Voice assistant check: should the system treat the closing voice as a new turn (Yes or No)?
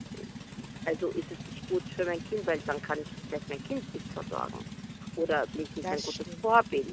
No